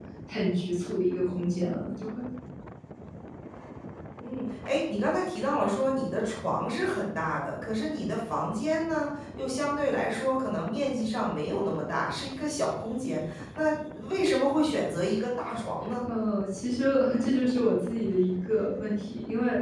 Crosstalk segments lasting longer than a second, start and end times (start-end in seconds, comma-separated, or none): none